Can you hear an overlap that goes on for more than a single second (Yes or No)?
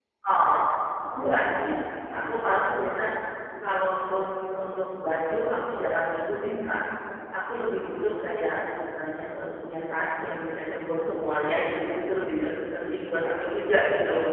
No